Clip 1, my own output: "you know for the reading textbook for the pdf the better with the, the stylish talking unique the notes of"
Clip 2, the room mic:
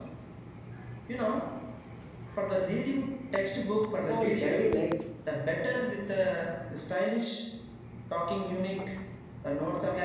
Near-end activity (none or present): present